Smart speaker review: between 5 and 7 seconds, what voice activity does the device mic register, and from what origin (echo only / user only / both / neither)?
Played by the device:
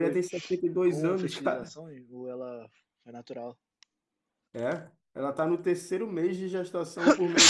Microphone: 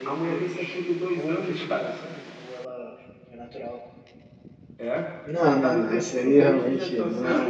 both